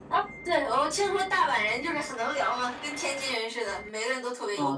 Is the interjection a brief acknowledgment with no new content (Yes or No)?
No